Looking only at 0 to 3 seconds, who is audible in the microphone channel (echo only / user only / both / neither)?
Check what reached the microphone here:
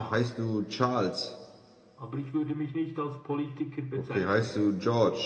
both